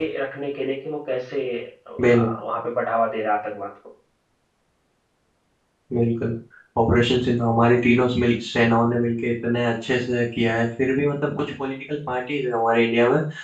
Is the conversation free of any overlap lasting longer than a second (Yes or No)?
Yes